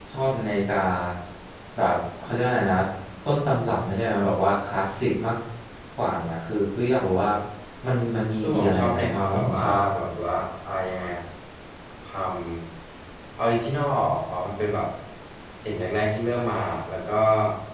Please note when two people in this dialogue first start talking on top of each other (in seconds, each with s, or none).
8.4 s